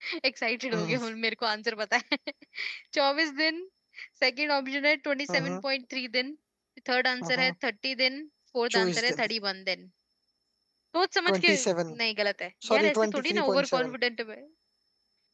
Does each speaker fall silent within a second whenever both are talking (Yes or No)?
No